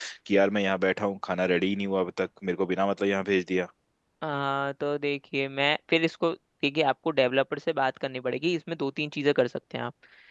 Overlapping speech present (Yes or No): No